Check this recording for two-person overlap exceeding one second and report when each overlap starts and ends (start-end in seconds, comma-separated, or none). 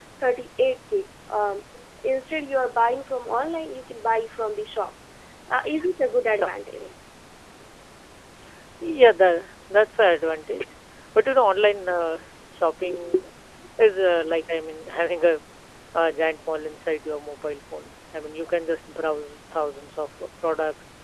none